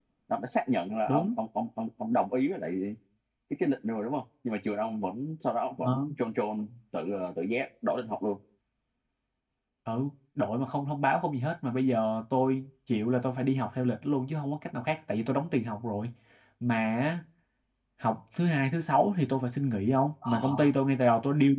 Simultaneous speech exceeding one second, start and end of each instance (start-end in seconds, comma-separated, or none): none